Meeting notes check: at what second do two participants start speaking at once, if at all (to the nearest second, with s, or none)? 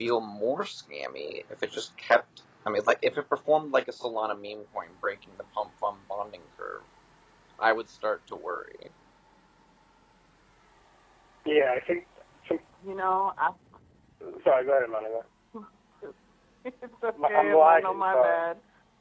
17 s